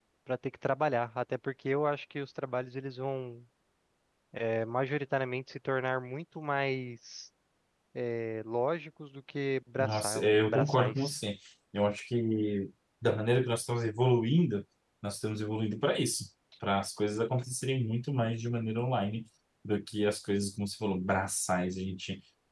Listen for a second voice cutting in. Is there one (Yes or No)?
Yes